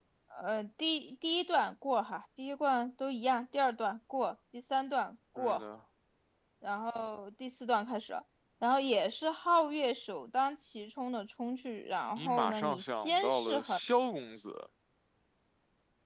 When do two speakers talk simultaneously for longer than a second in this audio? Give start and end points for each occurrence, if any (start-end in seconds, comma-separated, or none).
12.2-13.8